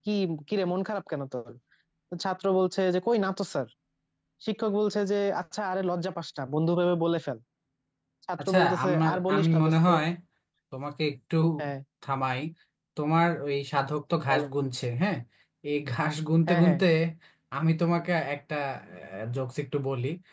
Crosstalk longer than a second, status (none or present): present